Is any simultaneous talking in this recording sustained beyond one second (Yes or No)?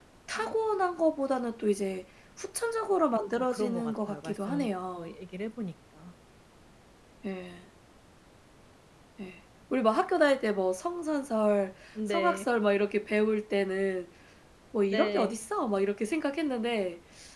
Yes